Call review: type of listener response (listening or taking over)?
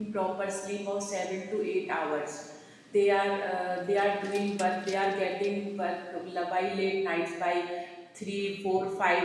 listening